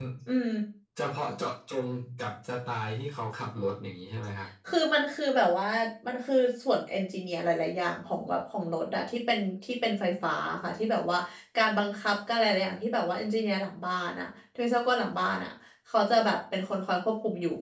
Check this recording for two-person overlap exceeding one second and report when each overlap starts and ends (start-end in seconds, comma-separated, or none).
none